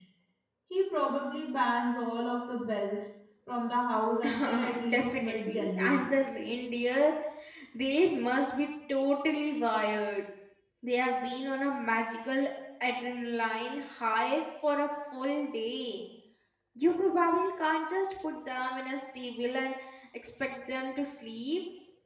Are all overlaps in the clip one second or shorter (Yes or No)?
No